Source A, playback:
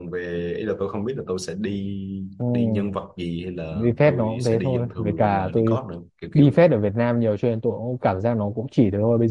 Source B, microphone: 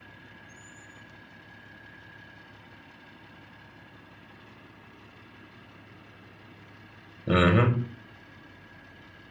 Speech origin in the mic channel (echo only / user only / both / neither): user only